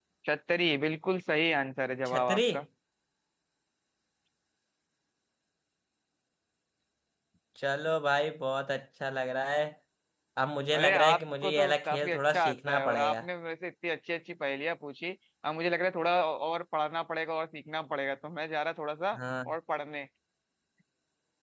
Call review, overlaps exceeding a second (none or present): present